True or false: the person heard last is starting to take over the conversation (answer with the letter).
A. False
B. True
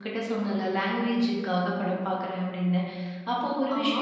A